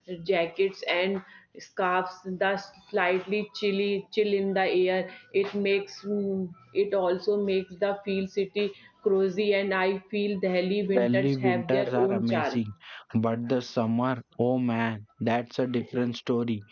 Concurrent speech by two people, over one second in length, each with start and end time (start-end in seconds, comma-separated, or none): 11.0-12.6